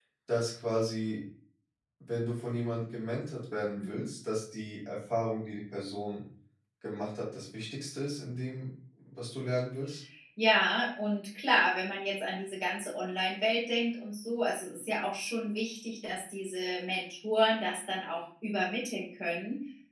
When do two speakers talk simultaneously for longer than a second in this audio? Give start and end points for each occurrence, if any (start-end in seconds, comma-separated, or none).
none